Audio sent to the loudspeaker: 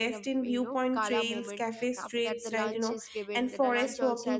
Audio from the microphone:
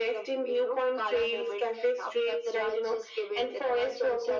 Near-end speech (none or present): none